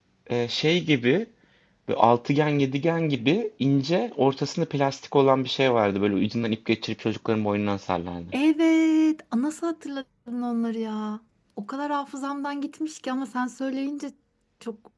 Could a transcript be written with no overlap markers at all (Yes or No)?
Yes